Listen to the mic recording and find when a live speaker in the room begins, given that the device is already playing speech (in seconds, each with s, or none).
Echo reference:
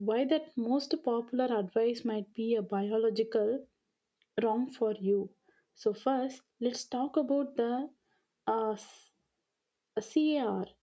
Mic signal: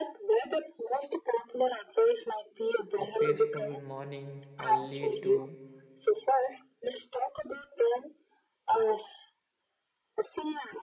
3.0 s